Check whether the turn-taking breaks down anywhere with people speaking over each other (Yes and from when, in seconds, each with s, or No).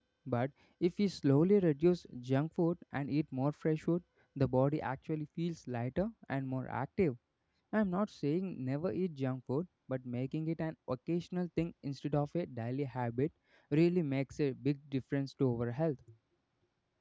No